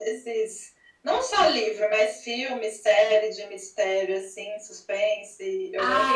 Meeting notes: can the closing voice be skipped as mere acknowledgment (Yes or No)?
No